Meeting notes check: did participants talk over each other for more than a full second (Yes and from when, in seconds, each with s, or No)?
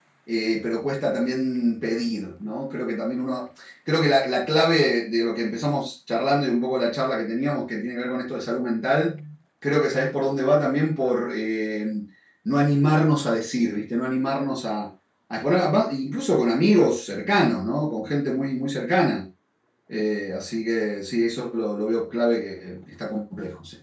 No